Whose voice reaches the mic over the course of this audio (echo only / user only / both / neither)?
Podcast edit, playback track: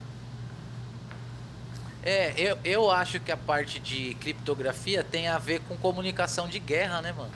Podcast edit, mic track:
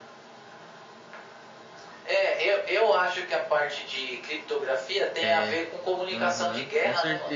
both